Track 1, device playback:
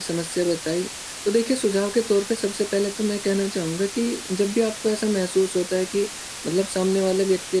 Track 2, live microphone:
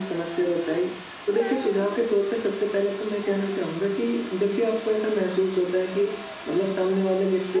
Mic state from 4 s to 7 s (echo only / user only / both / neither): echo only